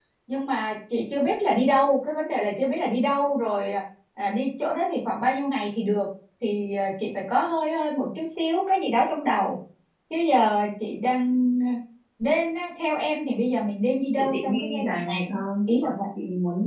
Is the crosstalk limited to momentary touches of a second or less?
No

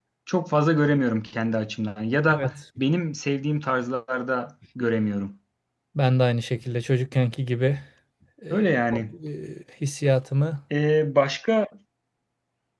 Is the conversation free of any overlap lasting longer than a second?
Yes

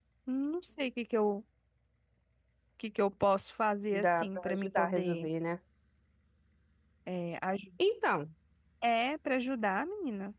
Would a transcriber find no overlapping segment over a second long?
No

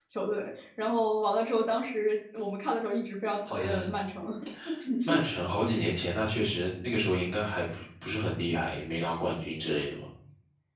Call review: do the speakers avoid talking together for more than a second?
Yes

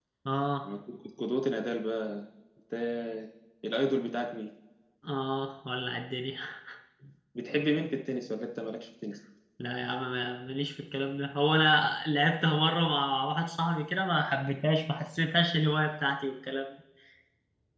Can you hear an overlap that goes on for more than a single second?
No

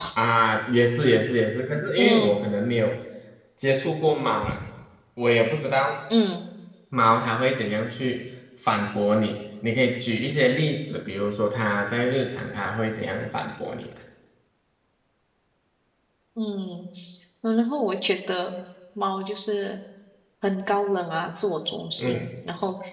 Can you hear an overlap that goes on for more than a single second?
No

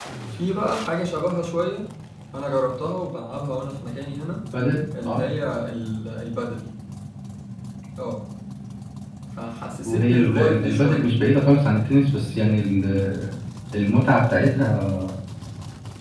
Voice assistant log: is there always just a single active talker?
No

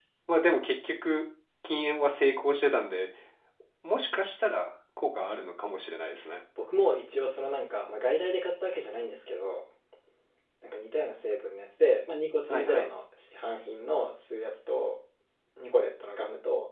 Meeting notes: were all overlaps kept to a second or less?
Yes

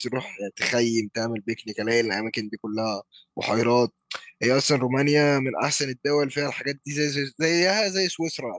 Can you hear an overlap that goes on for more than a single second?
No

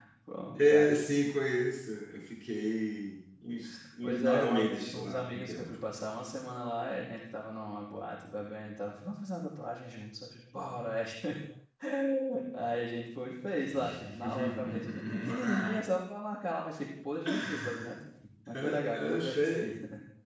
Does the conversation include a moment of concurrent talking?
Yes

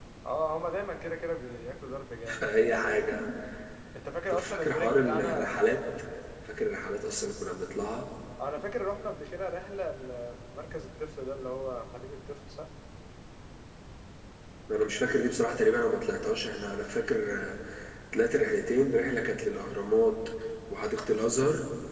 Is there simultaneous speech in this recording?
Yes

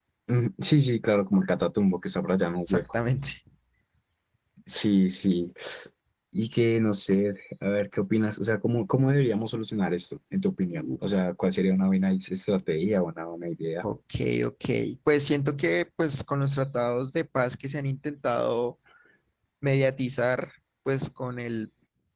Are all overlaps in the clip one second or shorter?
Yes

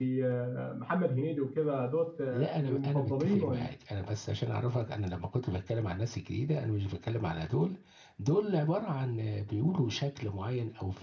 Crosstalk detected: Yes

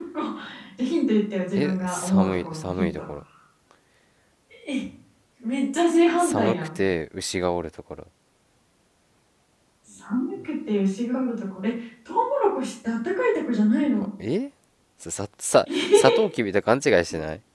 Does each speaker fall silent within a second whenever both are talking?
No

